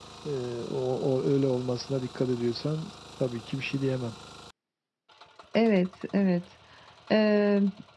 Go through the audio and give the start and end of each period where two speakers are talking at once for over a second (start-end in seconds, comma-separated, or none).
none